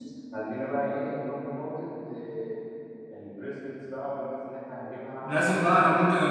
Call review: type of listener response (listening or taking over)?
taking over